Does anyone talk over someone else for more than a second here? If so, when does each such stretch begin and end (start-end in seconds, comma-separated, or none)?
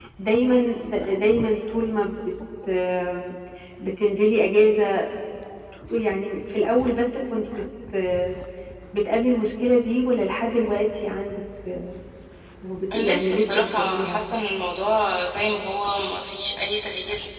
12.9-14.2